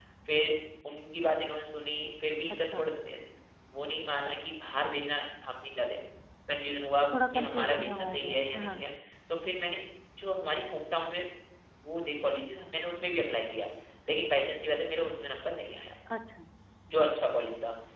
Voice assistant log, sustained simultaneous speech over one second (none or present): present